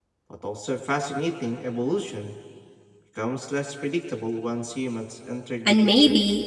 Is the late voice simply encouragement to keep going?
No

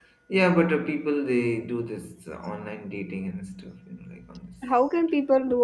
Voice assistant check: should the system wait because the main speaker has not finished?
No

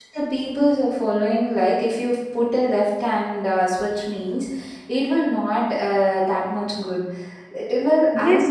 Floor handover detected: Yes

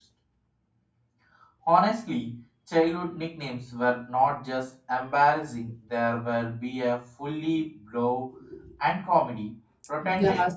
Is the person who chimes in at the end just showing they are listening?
No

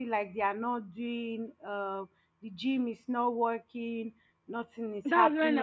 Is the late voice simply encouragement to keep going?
No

